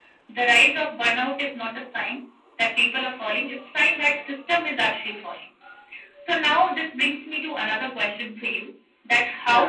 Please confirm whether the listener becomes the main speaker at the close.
No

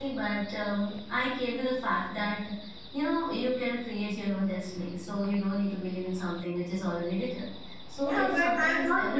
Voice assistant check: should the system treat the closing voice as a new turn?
Yes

